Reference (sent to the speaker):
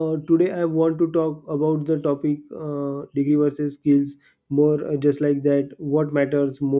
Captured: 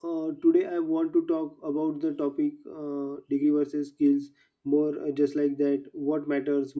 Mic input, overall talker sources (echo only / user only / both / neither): echo only